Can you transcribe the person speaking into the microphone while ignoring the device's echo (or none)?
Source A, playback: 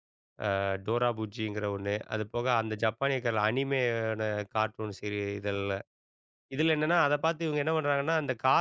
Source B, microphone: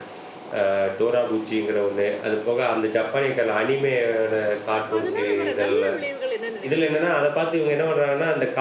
அப்ப அதனால வர நல்ல விளைவுகள் என்ன நினைக்கிறீங்க?